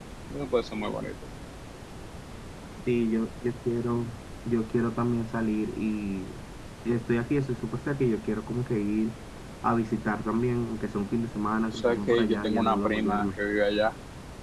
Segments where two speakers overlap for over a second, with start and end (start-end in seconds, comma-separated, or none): 11.7-13.3